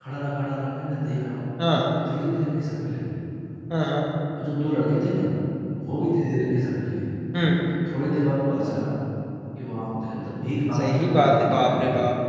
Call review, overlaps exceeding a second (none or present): present